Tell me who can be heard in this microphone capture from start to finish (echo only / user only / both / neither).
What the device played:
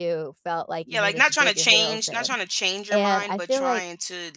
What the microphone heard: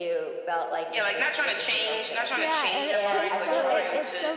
both